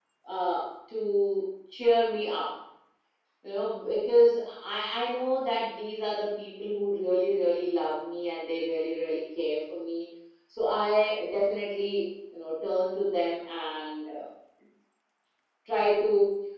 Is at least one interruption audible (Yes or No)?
No